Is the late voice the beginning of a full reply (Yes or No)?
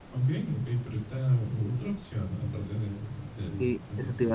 Yes